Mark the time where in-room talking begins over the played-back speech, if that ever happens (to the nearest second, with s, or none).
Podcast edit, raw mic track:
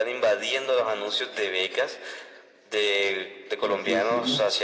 4 s